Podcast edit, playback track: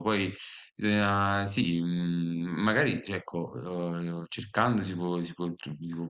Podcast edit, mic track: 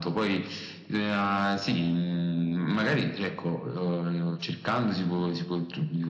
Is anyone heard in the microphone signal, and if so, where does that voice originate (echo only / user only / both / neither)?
echo only